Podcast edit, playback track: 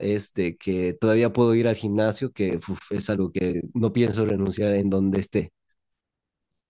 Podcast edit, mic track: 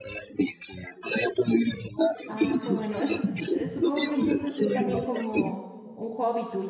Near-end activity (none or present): present